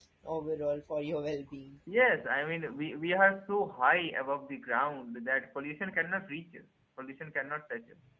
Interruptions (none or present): none